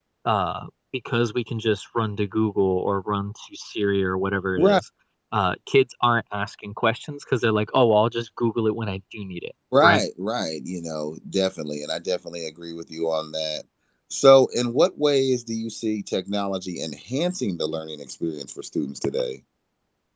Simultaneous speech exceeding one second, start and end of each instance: none

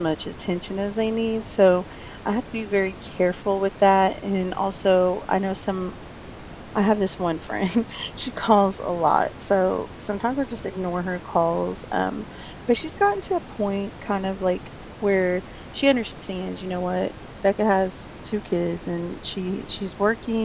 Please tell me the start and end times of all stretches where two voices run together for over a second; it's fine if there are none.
none

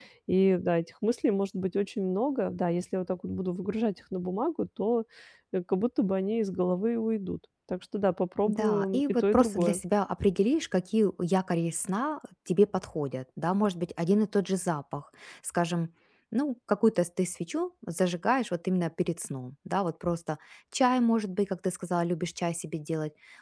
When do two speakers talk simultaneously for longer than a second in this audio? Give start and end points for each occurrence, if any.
8.5-9.8

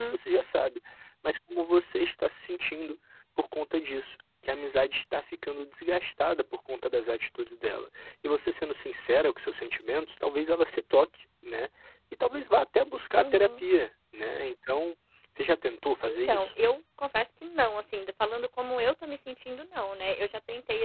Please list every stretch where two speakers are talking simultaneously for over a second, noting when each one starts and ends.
none

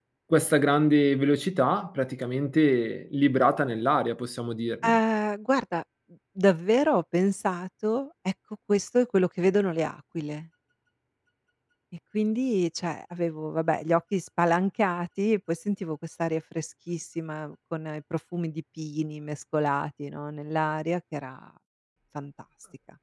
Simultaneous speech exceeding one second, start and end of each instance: none

